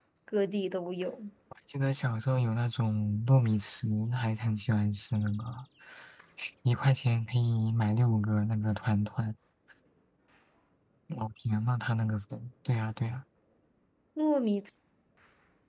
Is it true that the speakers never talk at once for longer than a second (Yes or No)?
Yes